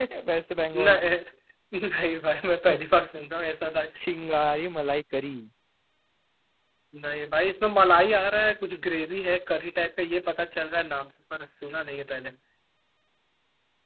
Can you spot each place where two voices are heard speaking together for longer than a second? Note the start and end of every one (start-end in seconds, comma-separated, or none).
none